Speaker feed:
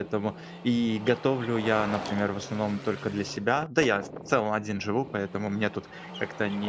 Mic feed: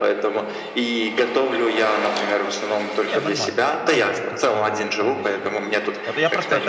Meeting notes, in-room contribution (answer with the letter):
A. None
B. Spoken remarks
B